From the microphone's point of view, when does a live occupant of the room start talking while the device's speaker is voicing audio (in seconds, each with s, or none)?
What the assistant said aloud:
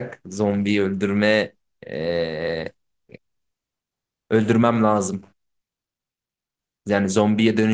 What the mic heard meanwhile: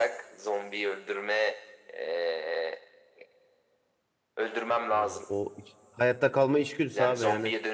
4.9 s